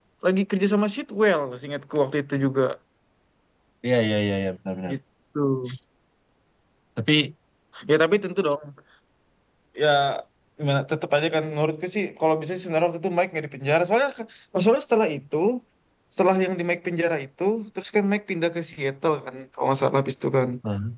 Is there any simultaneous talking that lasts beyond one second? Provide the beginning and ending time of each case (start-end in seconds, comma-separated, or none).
none